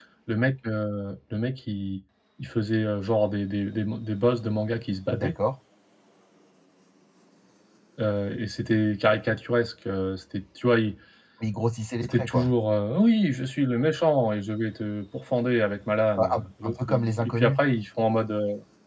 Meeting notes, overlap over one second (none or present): present